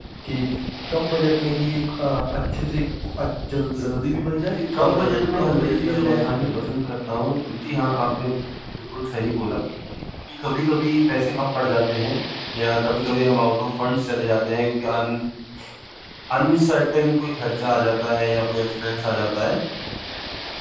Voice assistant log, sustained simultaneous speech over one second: present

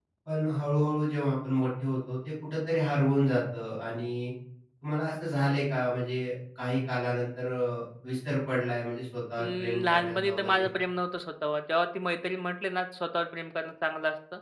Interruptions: present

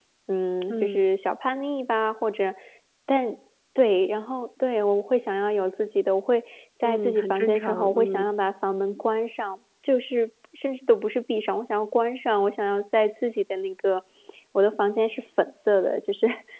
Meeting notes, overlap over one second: present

